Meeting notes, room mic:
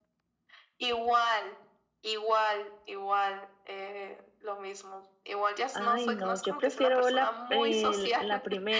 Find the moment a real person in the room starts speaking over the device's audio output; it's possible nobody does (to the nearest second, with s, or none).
6 s